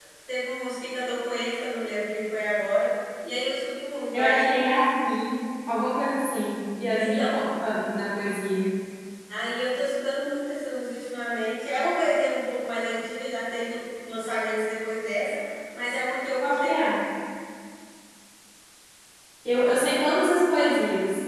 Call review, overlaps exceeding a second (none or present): none